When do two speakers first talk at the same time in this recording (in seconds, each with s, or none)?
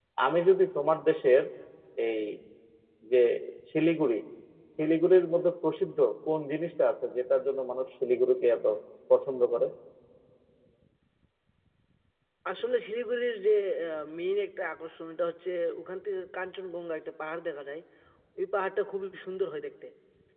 none